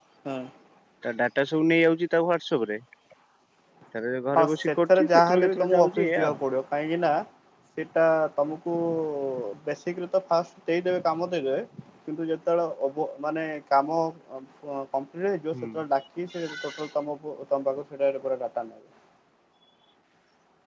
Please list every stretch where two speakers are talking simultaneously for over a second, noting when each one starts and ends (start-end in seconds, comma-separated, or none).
4.4-6.4